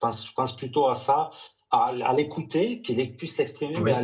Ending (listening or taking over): listening